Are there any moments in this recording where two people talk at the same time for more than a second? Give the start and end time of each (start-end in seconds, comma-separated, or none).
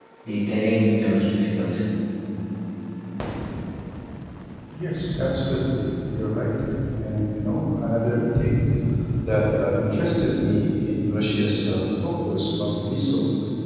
none